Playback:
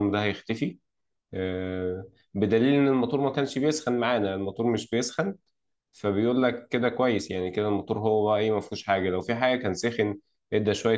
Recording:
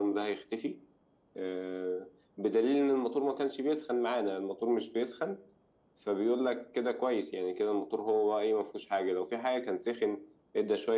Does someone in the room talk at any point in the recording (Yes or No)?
No